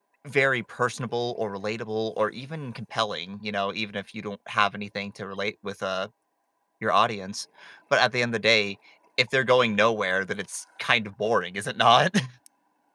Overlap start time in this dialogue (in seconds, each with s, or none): none